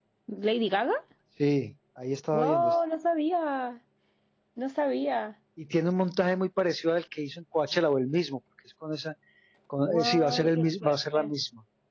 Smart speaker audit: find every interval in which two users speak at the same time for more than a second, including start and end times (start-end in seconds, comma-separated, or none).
9.8-11.3